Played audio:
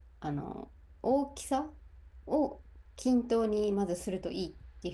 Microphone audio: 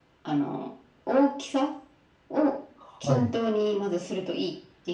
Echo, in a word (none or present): present